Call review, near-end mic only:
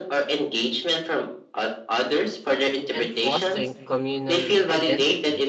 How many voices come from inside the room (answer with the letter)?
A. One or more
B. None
A